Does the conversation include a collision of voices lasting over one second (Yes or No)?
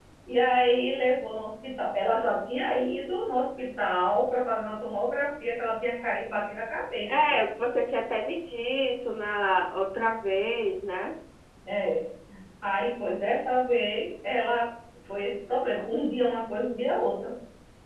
No